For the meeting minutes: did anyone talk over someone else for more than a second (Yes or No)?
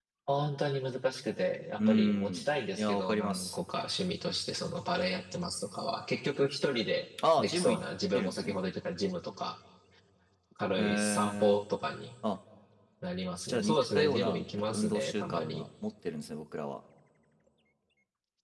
Yes